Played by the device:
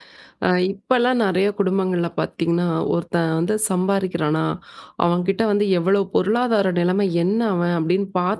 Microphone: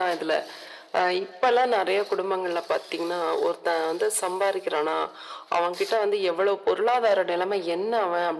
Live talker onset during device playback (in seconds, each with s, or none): none